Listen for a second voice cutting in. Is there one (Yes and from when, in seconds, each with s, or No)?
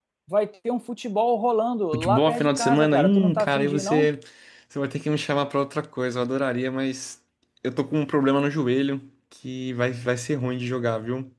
Yes, from 1.9 s